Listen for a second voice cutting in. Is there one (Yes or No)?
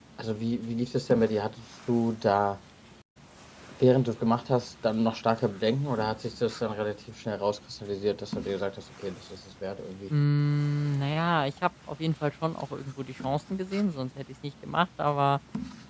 No